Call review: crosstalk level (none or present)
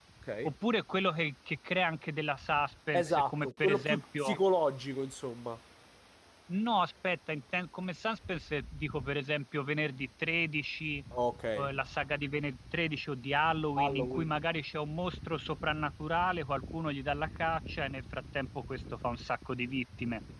present